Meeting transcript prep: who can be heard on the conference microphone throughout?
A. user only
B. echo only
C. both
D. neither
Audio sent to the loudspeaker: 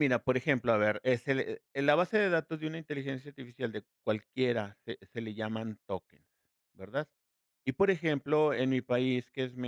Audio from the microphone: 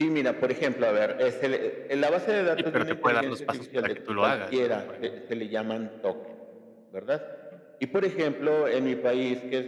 C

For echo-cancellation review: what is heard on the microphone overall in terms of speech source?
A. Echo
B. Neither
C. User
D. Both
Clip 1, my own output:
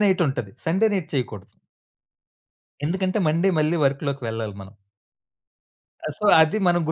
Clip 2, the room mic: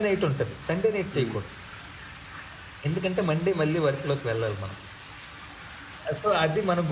D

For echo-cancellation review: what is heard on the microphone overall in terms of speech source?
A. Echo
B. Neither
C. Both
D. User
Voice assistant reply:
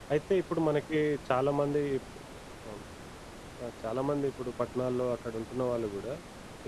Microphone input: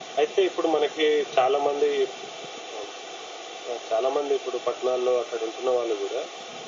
A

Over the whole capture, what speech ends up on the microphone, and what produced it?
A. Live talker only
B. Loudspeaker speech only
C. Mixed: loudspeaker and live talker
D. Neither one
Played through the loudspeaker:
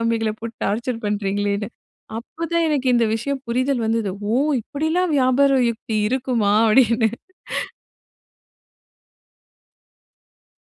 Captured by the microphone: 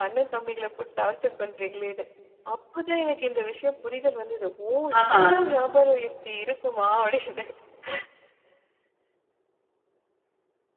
C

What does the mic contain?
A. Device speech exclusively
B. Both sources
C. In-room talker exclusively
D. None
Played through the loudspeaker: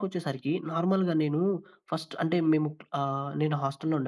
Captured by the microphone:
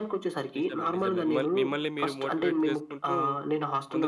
B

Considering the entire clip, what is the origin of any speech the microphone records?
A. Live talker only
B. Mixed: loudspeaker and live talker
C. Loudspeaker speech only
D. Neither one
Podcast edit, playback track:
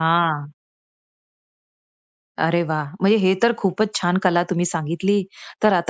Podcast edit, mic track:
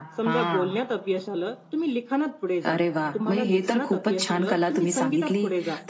B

